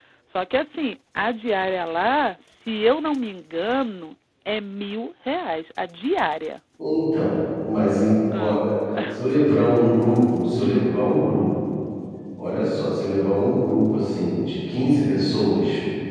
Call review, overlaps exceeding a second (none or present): none